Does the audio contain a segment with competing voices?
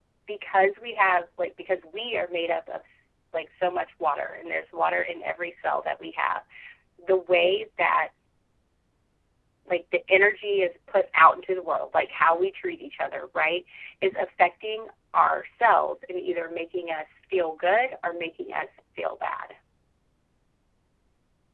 No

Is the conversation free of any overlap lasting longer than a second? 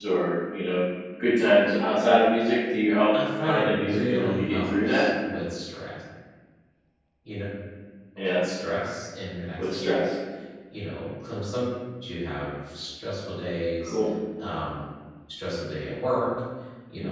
No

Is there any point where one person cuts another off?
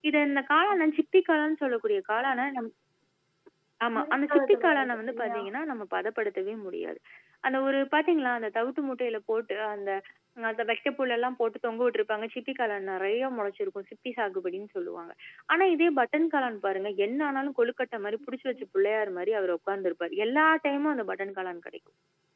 Yes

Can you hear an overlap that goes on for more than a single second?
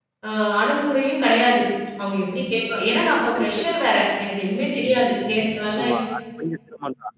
No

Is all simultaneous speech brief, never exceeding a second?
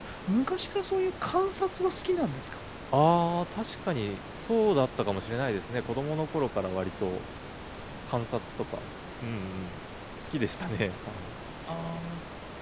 Yes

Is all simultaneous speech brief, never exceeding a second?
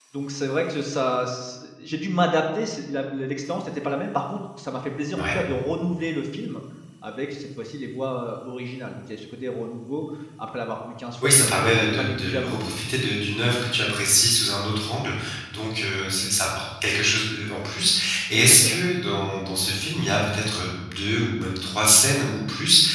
No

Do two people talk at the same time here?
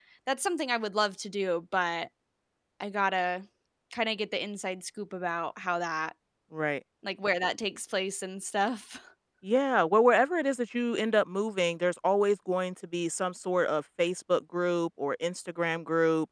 No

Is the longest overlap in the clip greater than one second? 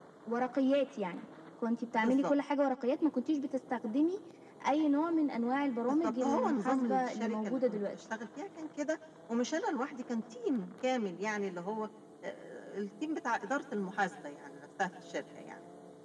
Yes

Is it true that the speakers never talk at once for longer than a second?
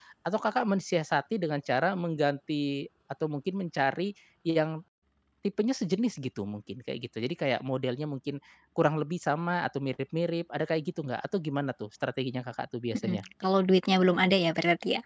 Yes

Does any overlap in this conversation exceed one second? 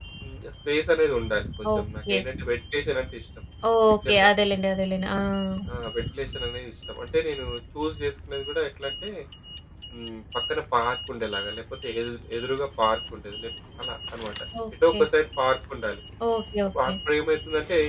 No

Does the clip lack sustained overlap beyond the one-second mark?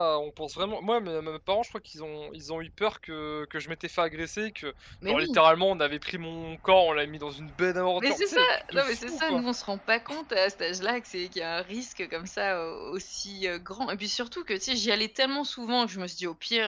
No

